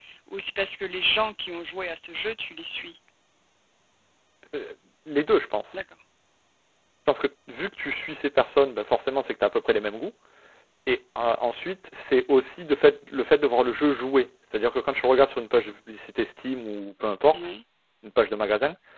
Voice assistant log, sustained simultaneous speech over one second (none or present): none